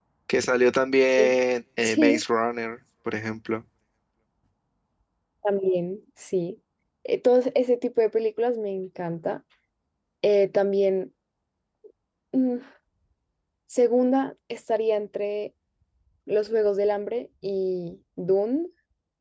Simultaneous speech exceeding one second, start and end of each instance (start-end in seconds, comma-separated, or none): none